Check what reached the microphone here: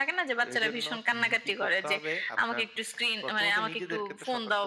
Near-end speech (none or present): present